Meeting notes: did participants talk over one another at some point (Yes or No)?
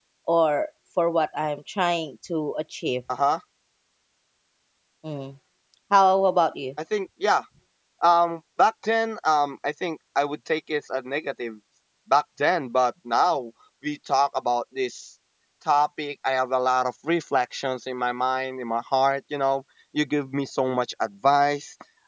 No